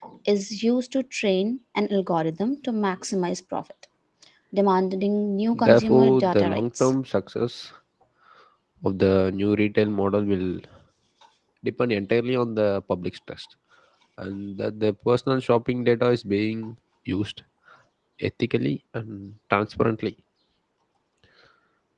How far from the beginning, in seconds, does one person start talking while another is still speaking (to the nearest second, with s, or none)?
6 s